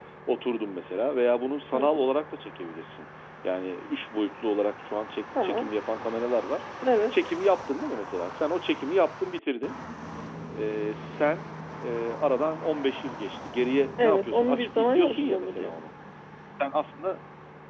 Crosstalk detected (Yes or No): Yes